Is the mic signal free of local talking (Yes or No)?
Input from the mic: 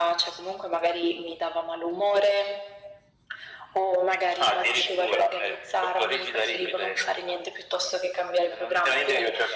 Yes